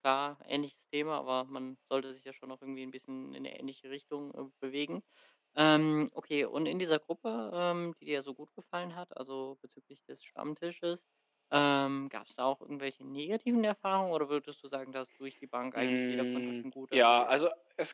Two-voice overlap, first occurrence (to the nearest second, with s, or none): 16 s